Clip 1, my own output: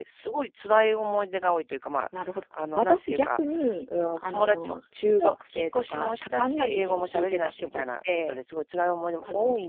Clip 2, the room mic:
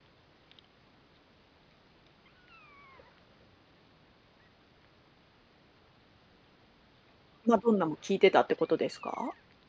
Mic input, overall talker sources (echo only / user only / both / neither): user only